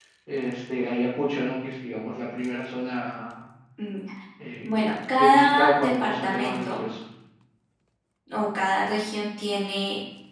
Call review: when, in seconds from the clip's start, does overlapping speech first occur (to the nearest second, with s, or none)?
5 s